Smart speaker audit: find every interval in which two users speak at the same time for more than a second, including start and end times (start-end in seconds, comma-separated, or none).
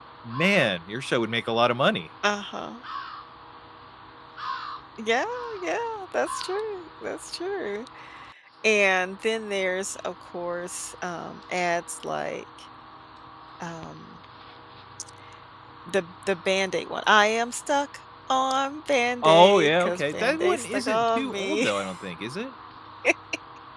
19.2-21.7